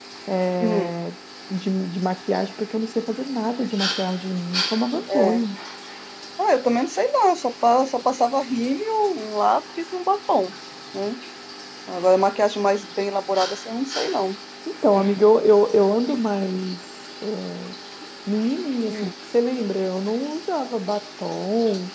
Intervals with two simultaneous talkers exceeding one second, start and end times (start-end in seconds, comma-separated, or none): none